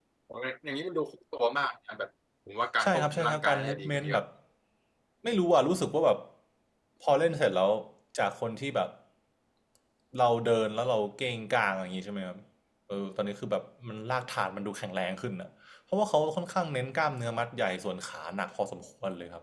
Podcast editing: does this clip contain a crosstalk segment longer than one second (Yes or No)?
Yes